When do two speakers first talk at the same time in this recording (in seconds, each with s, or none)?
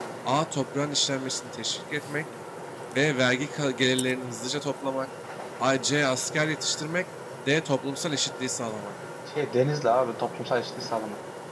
none